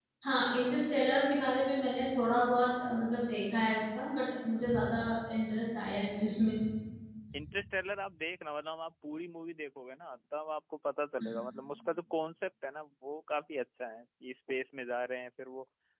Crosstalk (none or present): none